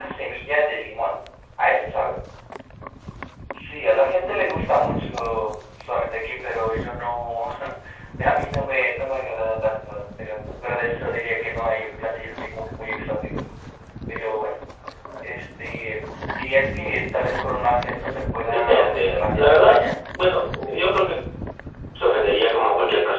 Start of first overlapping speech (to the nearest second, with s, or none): 19 s